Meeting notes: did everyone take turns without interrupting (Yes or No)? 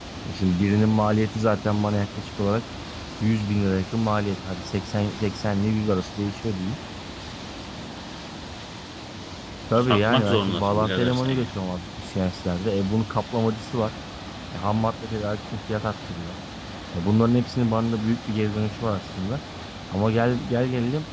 No